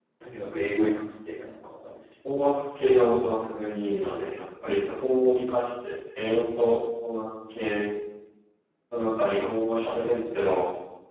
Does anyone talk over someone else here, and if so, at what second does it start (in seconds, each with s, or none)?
none